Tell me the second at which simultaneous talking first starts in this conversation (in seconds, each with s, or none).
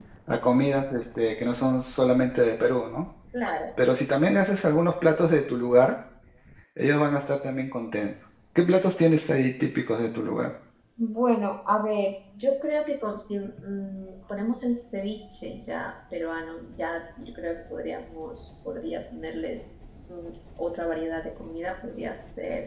none